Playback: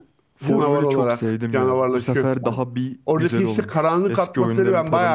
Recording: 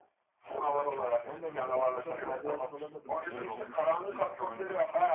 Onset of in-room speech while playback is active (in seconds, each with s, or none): 1.2 s